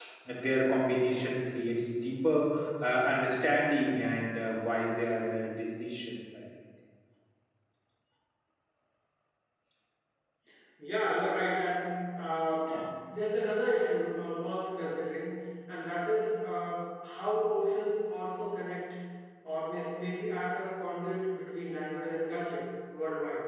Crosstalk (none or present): none